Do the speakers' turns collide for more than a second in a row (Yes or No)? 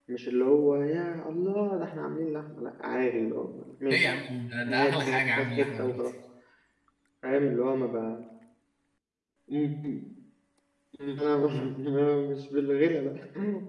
Yes